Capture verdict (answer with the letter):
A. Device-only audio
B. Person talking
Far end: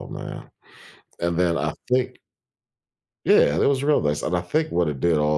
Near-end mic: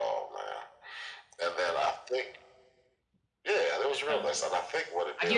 B